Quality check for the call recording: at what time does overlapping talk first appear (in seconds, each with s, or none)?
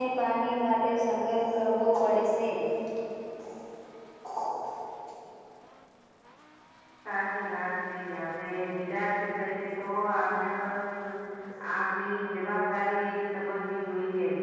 none